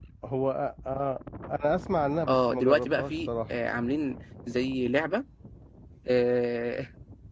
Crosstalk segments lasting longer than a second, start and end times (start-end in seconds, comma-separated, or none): 2.3-3.5